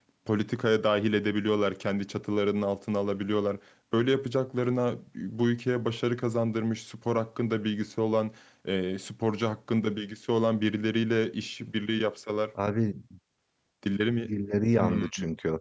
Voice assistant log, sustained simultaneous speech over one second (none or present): none